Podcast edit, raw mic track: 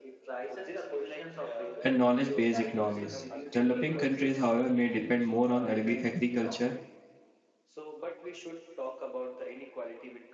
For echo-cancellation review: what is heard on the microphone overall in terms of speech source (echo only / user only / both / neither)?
both